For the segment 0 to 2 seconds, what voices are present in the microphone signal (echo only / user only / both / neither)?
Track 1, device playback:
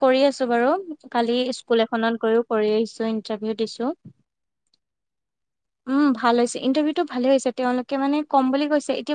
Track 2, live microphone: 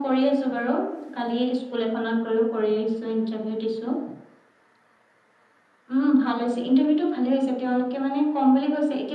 echo only